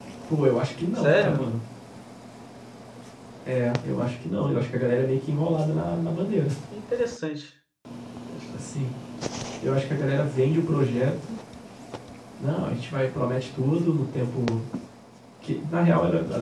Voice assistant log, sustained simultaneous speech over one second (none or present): none